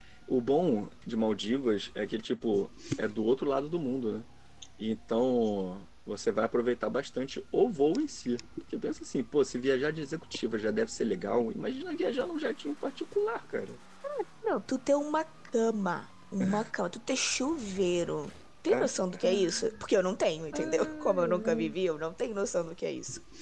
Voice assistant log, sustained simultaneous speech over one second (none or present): present